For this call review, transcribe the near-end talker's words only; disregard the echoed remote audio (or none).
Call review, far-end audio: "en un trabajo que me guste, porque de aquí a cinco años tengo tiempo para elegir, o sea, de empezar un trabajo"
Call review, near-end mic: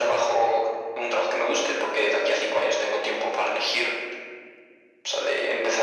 none